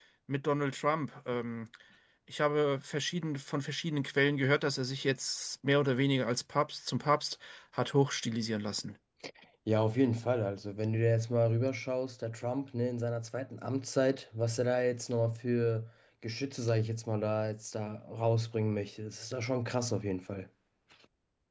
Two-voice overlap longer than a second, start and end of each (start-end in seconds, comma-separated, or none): none